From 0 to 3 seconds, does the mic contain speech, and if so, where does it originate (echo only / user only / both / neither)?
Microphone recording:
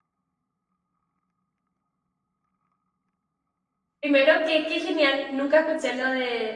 neither